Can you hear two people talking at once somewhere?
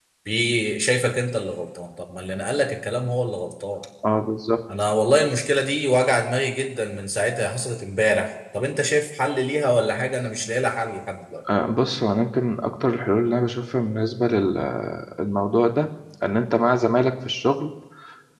No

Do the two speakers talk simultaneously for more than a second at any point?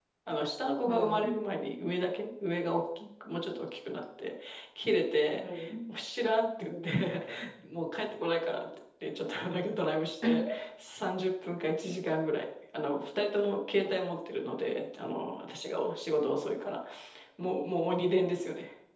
No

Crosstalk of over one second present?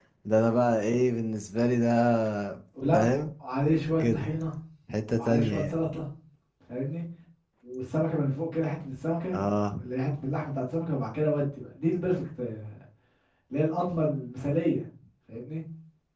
No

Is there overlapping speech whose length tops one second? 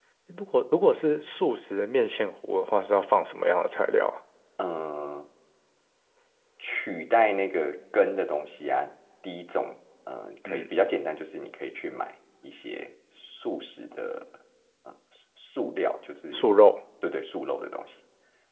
No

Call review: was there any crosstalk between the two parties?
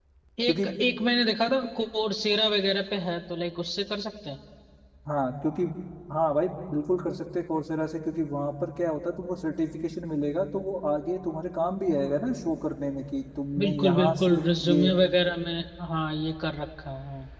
Yes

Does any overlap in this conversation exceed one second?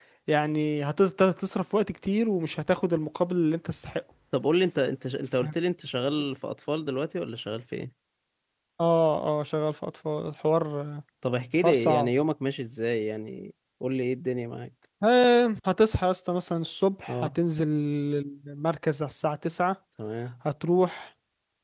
No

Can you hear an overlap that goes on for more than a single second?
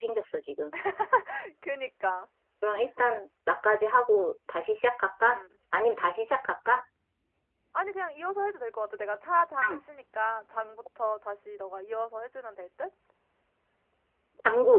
No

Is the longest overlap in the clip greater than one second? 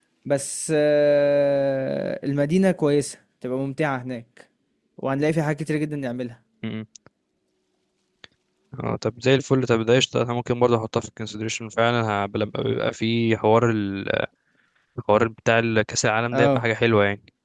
No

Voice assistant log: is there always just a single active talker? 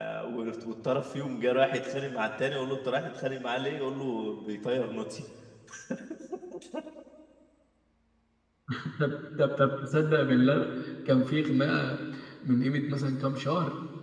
Yes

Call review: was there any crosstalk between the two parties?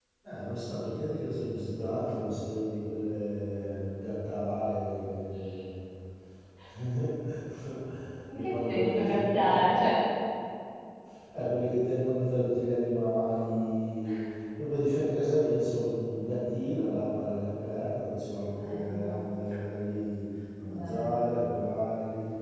Yes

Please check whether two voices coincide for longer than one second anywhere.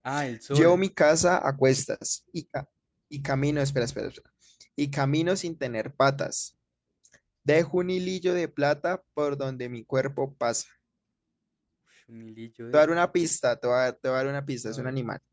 No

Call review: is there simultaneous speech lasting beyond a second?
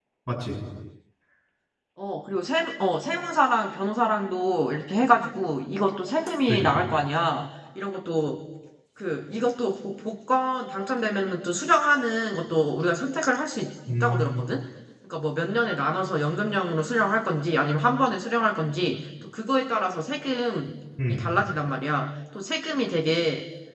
No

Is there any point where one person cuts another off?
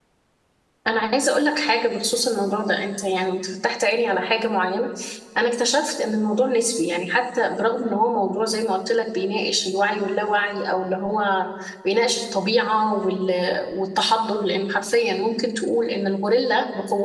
No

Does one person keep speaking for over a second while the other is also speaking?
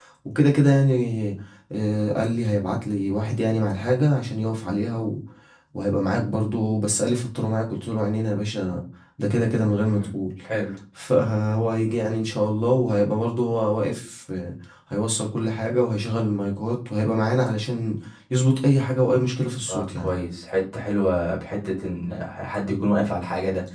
No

